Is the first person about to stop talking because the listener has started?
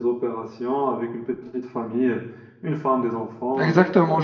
Yes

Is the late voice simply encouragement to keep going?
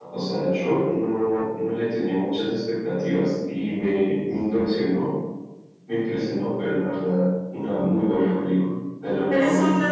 No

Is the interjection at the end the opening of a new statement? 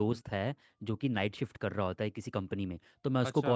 No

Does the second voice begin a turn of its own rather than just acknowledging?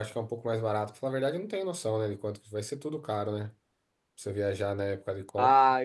Yes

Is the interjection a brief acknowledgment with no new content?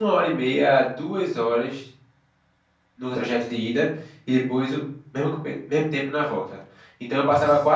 Yes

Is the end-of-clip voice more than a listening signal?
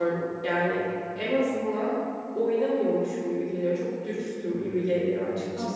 Yes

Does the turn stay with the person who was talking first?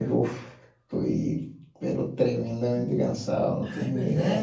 No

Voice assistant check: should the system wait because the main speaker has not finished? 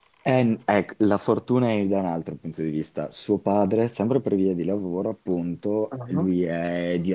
Yes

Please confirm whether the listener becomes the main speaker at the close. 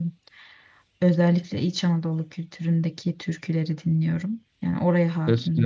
Yes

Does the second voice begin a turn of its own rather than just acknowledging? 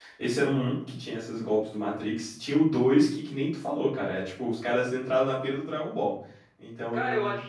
Yes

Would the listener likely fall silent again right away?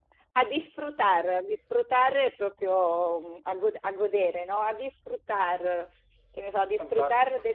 Yes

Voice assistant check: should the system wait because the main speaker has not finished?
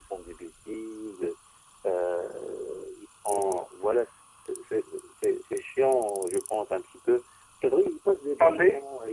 Yes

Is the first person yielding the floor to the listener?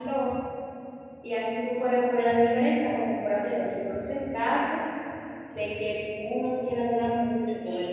Yes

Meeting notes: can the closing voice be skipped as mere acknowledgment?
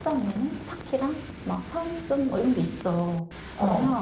Yes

